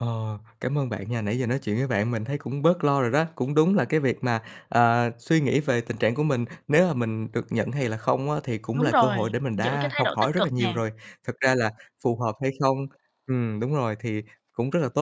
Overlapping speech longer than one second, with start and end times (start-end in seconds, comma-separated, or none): 9.6-10.8